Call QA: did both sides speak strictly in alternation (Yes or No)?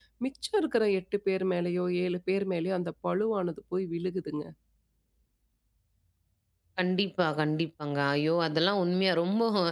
Yes